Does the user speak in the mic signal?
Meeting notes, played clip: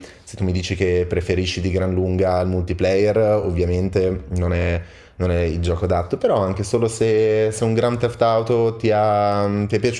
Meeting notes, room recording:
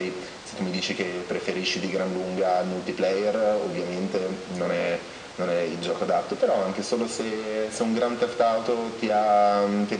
No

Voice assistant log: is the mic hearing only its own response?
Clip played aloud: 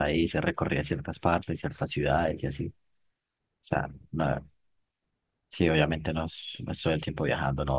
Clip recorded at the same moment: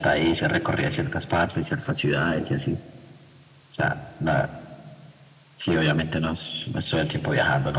Yes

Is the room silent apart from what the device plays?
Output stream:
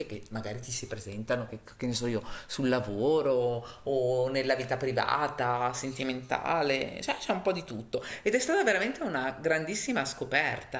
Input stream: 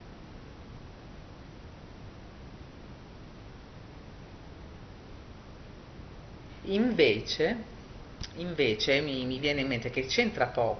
No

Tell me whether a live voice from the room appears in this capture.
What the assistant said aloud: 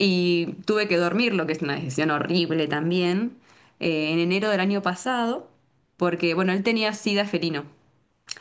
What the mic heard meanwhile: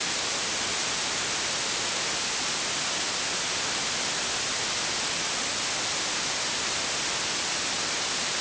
No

